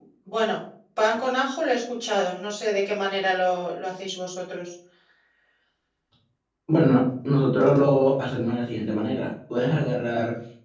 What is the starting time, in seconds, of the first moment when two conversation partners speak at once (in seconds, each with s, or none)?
none